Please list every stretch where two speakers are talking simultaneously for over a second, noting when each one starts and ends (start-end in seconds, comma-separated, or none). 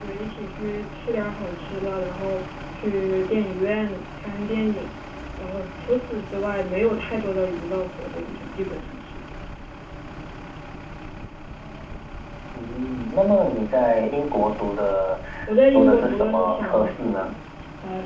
15.7-17.3